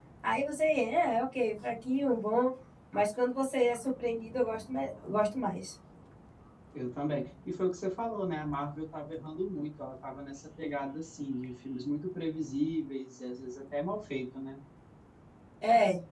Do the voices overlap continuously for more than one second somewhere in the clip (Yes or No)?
No